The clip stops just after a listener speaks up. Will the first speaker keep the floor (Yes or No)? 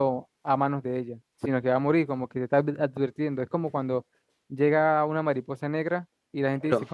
Yes